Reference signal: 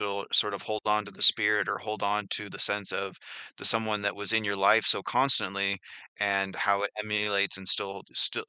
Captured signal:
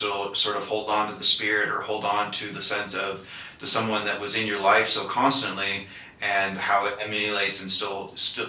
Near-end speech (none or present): none